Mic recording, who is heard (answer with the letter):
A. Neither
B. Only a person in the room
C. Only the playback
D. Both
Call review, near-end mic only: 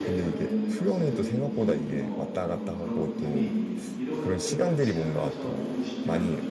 D